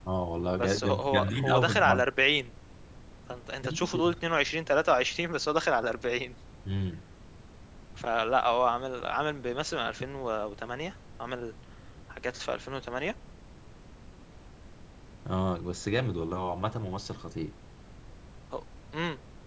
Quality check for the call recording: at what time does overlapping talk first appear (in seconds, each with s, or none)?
0.6 s